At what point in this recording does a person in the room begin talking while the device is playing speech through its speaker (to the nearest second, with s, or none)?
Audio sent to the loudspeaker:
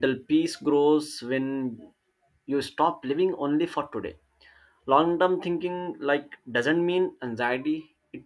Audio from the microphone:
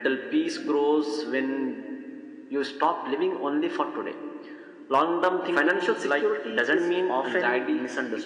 5 s